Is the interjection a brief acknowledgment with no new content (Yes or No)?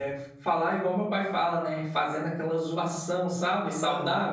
No